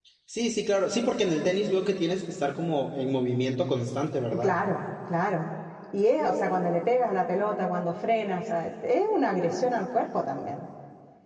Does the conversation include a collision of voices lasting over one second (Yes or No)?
No